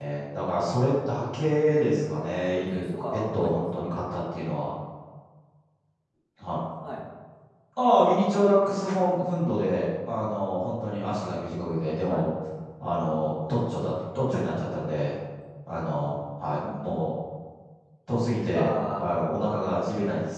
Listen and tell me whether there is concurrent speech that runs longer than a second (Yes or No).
Yes